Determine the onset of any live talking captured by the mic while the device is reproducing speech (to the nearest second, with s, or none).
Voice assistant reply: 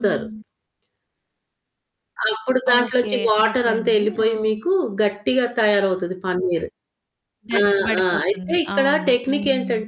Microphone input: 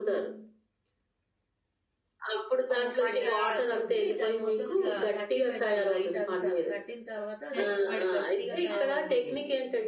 3 s